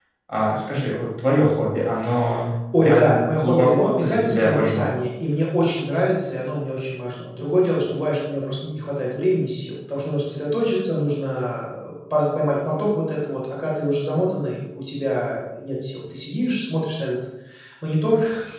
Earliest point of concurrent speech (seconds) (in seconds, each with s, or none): 2.8 s